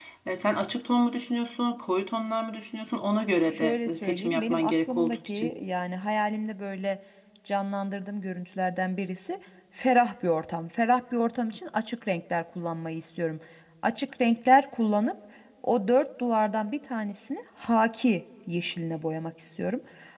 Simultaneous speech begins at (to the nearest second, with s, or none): 4 s